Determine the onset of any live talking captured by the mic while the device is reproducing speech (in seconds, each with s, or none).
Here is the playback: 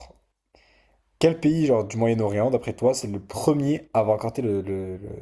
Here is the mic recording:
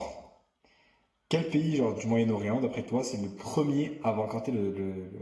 none